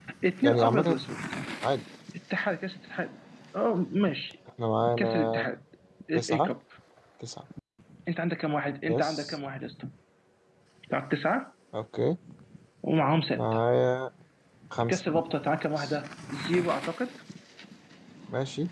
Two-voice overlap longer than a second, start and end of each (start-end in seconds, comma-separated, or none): none